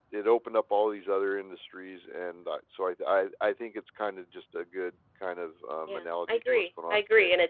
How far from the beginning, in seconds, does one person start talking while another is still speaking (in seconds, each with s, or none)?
5.9 s